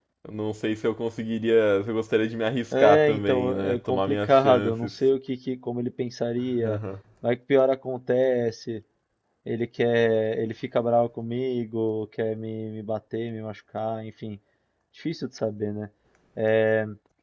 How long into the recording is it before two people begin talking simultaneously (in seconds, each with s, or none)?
2.7 s